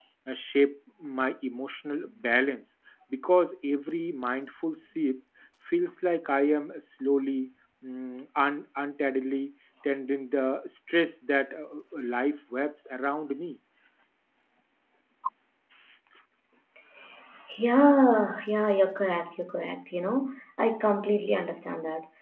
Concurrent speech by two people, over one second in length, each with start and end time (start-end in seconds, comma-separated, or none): none